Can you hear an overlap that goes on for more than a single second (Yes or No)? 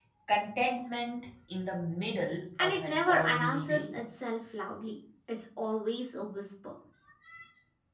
Yes